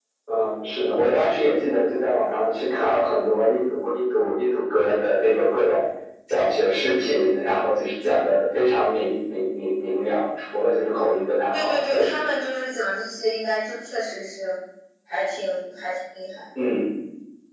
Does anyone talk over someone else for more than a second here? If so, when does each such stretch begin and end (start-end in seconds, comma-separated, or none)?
none